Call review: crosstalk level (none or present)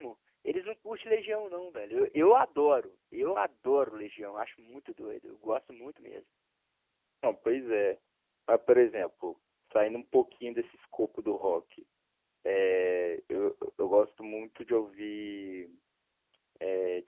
none